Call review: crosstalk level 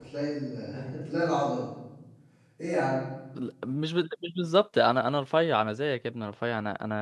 none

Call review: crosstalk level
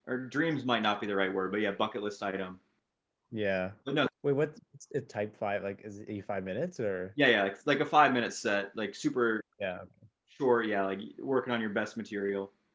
none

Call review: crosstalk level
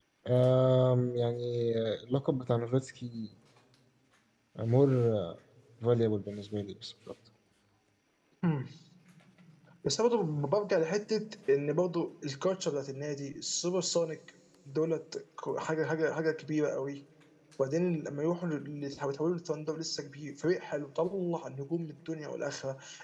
none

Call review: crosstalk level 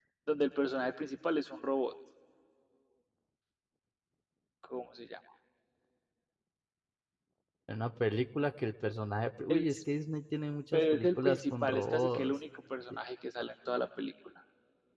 present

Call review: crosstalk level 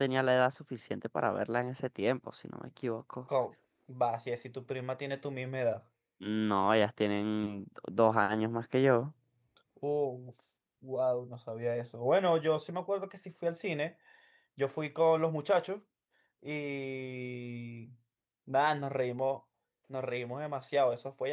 none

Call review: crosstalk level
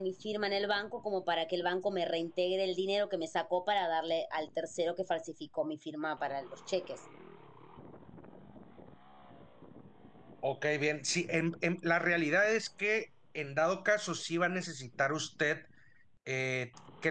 none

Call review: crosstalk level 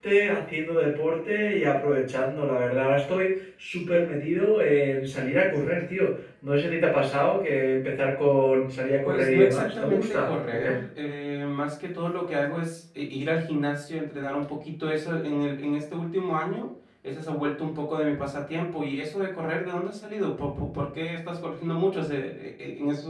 present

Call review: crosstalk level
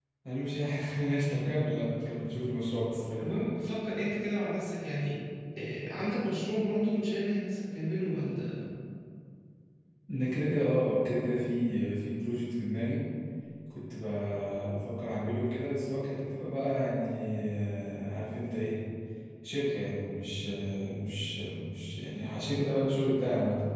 none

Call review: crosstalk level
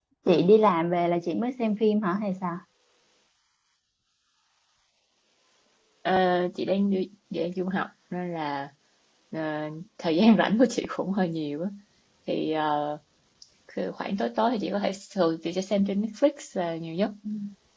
none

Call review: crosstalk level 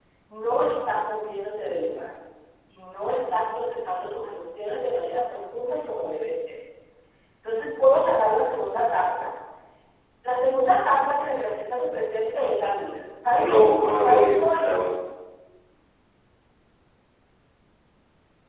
present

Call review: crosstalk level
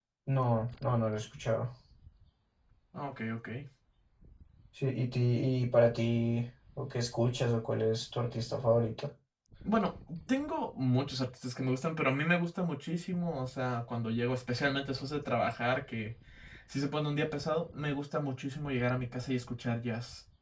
none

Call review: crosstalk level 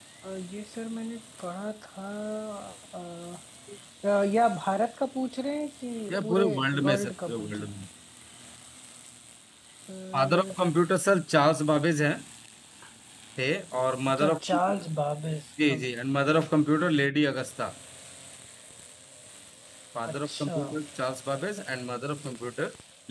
present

